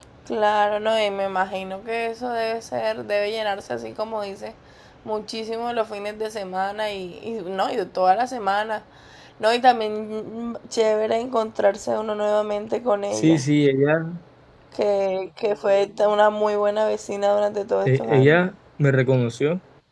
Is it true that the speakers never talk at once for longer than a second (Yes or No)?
Yes